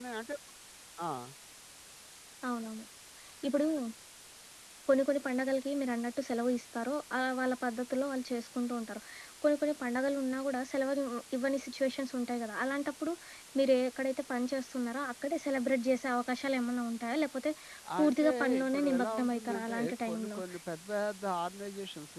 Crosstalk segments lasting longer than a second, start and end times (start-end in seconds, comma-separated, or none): 18.0-20.4